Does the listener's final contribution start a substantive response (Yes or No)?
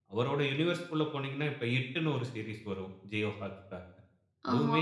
No